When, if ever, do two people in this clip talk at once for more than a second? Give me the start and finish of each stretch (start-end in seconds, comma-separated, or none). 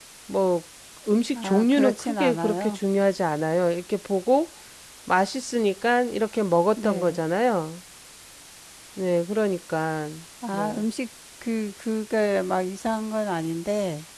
1.4-2.8